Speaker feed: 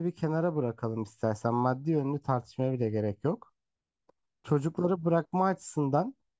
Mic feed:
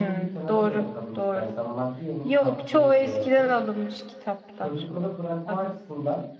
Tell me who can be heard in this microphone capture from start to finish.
both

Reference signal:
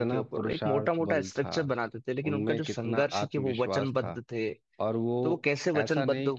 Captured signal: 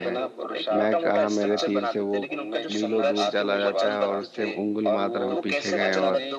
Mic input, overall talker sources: both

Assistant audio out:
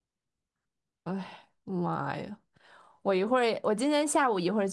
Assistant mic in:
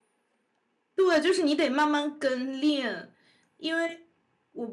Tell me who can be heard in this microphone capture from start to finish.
user only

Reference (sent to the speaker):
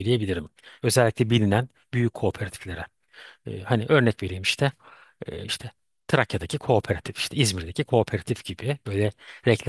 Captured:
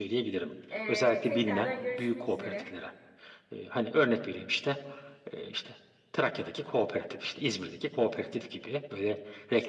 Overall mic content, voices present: both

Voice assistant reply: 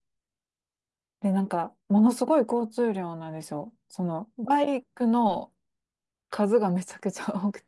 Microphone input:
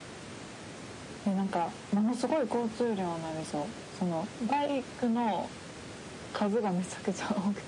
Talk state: echo only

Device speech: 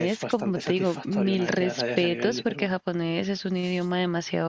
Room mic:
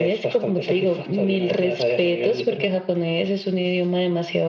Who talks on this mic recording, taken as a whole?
echo only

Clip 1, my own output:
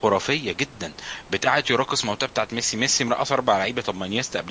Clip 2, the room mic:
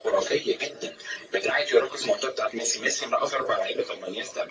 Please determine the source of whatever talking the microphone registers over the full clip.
echo only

